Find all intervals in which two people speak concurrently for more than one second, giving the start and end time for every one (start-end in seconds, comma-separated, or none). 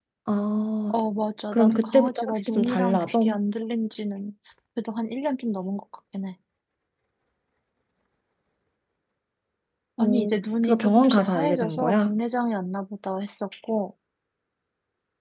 1.5-3.3, 10.6-12.1